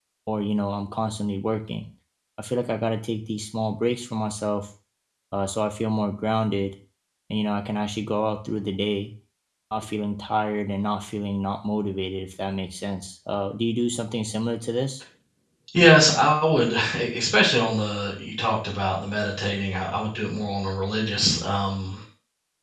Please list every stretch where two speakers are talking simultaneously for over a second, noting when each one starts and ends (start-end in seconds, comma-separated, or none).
none